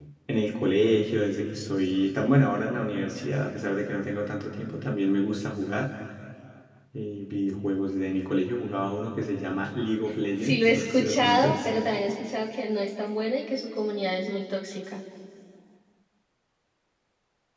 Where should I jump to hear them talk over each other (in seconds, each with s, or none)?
10.4 s